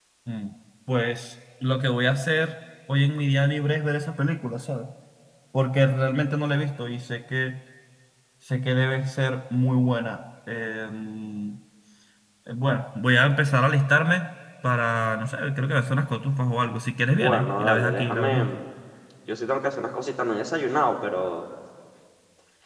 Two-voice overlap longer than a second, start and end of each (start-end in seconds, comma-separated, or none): 17.1-18.6